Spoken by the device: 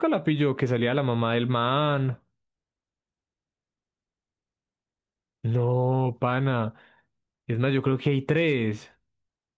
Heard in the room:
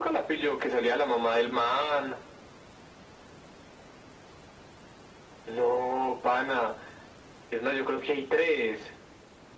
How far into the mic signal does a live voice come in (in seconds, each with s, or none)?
none